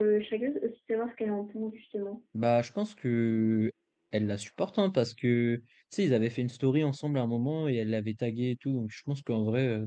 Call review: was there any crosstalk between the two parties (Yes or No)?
No